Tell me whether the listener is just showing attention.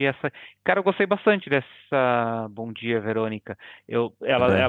Yes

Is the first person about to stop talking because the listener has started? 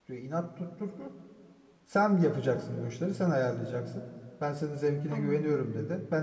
No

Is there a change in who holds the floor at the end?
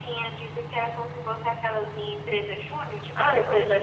Yes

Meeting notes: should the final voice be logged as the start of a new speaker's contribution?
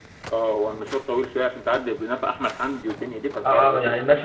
Yes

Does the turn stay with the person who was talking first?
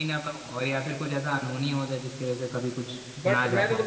No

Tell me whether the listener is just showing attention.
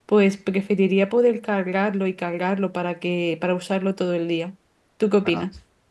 No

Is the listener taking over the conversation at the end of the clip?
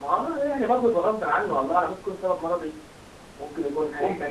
Yes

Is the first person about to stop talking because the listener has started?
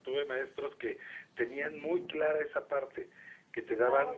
No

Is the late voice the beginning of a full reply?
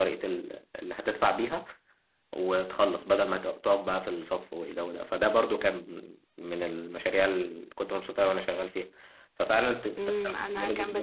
Yes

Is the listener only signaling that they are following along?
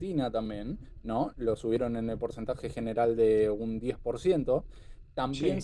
Yes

